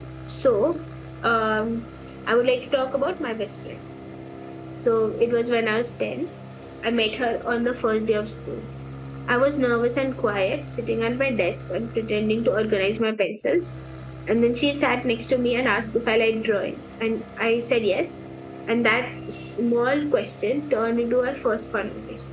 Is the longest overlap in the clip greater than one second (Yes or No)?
No